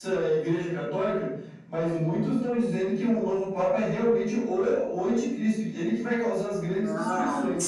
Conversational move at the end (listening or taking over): taking over